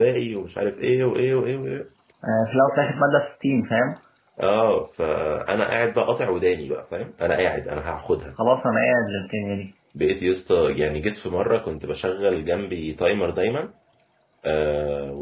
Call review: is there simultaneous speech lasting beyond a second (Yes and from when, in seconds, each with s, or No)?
No